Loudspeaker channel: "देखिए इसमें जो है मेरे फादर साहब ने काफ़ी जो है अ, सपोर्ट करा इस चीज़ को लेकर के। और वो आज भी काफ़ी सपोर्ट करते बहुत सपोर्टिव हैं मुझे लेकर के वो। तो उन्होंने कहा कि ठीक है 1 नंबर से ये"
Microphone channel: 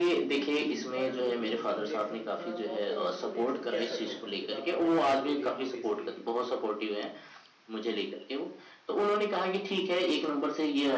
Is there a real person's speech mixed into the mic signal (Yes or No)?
Yes